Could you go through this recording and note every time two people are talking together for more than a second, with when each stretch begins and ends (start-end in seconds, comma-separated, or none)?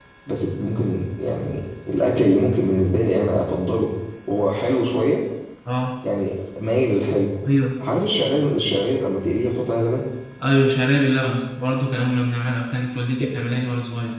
none